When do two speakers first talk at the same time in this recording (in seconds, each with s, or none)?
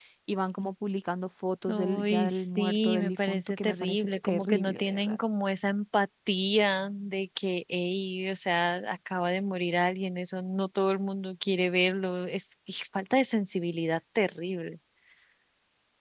1.7 s